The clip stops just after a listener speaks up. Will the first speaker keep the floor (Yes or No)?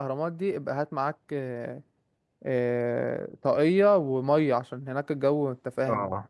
No